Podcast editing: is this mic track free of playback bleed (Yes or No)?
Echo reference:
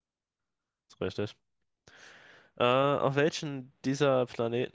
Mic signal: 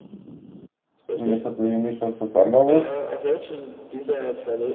No